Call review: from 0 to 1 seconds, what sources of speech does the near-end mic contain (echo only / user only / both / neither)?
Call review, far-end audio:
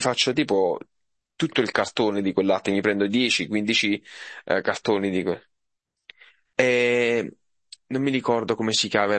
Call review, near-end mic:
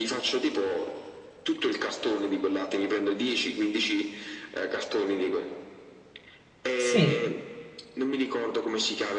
echo only